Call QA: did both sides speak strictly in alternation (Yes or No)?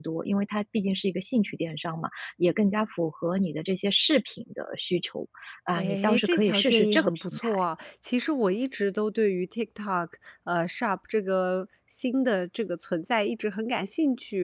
No